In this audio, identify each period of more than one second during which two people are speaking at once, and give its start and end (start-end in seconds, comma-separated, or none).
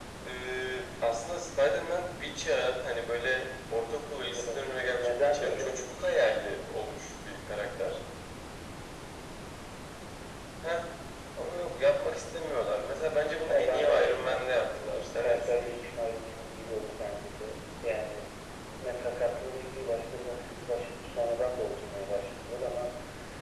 4.3-6.7, 13.5-15.9